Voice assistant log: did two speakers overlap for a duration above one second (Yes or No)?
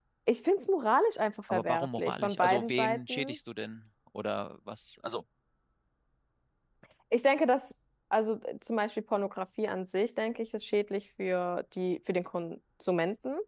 Yes